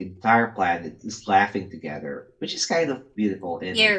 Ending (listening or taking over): taking over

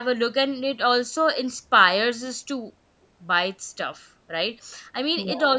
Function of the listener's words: listening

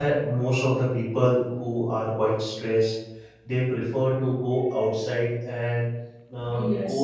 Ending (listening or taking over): listening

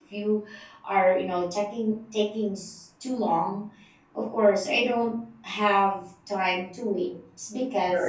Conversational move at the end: taking over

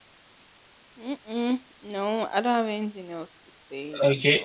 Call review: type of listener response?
taking over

